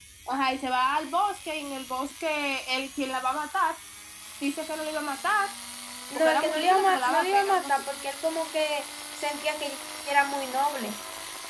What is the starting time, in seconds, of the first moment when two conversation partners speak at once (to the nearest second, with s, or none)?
6 s